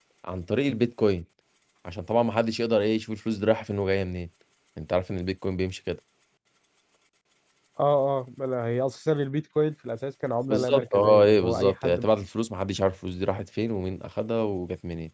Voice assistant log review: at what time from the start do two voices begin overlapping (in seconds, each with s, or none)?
10.5 s